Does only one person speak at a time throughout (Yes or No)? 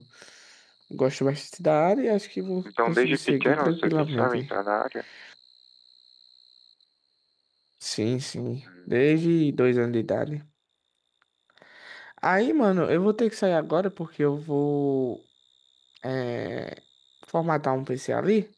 No